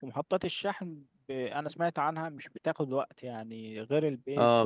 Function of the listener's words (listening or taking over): taking over